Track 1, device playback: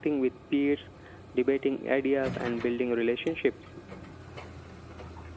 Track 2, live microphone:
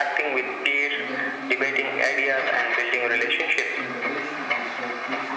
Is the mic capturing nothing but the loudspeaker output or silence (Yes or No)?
No